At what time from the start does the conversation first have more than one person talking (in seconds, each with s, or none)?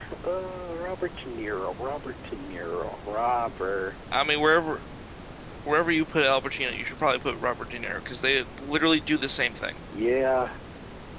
none